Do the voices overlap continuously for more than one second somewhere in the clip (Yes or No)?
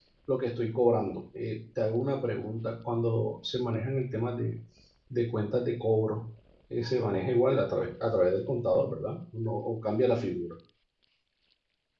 No